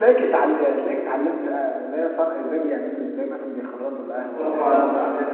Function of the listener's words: taking over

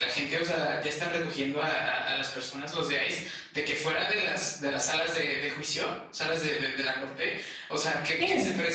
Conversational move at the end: listening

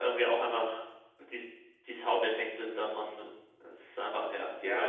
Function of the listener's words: taking over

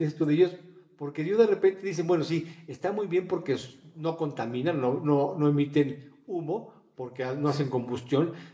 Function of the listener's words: listening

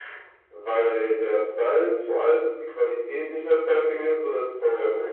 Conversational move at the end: taking over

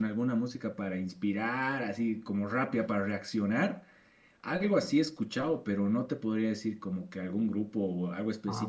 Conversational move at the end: taking over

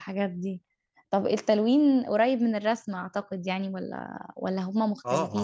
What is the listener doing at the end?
taking over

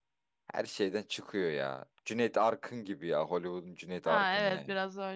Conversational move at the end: taking over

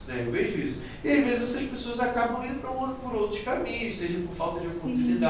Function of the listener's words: listening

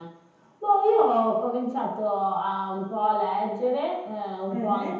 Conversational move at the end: listening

